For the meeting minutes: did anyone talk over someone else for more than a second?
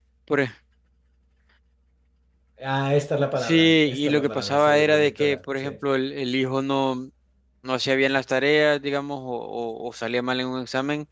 Yes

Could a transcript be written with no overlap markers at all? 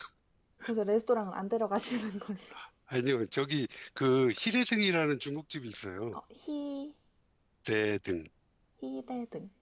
Yes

